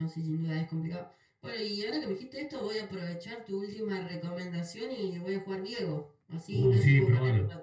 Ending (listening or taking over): taking over